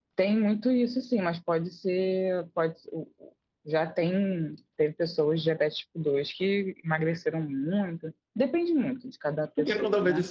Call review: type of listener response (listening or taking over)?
taking over